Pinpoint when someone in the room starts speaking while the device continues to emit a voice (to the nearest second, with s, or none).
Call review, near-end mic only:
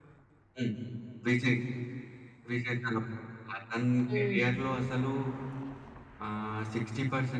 4 s